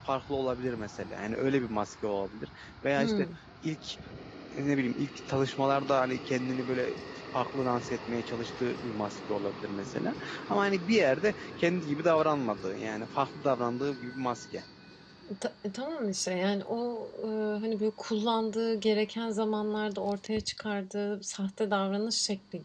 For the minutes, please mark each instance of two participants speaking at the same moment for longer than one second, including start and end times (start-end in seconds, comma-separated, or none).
none